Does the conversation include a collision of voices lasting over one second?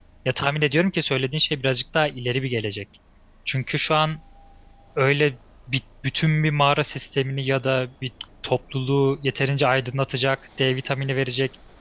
No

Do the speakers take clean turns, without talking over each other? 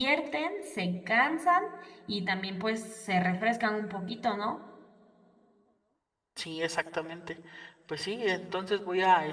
Yes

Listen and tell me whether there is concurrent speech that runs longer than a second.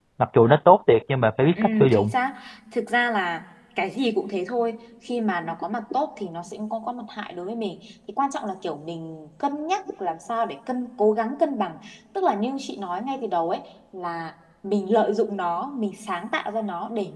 No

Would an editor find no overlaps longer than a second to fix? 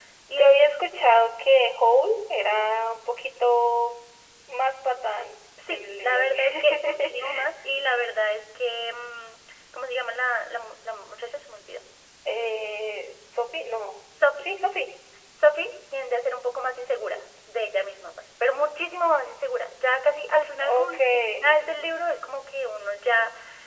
No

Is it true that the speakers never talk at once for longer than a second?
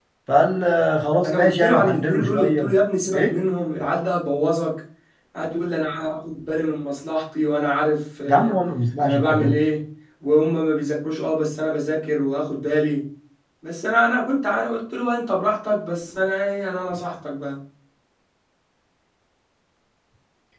No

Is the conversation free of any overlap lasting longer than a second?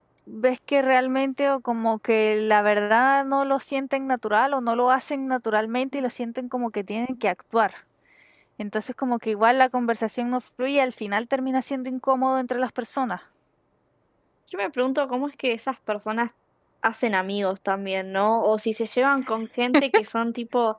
Yes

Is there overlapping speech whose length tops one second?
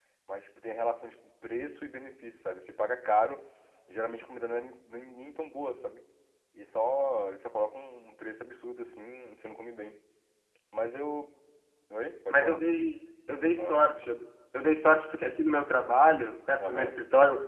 No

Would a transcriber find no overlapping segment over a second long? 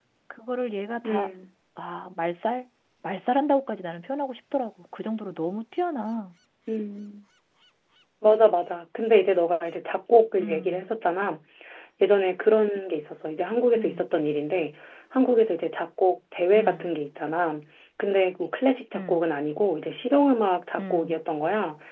Yes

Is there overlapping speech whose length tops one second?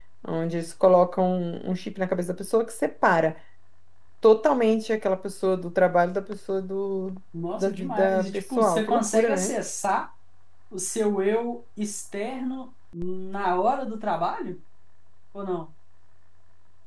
Yes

